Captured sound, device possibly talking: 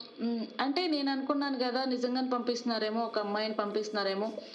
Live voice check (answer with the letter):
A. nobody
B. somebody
A